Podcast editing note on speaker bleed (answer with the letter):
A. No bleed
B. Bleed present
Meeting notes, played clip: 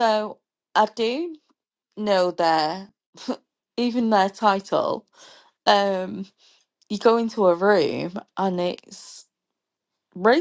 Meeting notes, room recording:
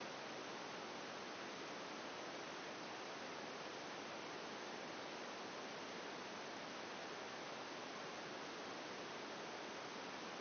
A